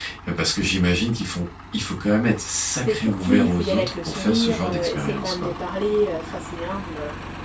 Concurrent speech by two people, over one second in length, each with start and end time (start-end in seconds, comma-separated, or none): 2.8-5.5